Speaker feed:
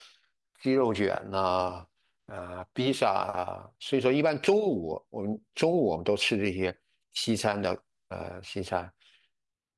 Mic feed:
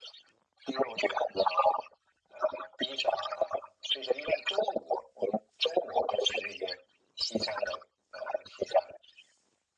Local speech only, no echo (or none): none